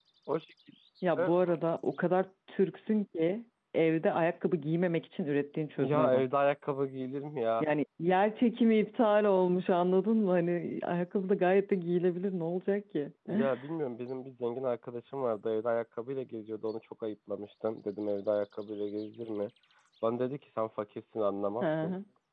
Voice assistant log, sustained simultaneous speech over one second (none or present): none